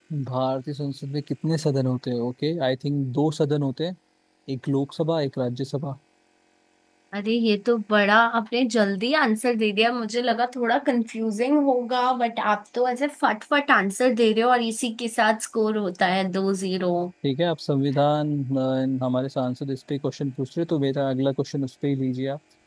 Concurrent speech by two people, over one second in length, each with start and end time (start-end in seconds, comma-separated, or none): none